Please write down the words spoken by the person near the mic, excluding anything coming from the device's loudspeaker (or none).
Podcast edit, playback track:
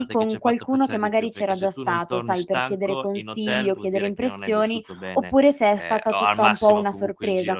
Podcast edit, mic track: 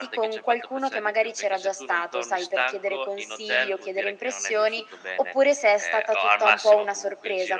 none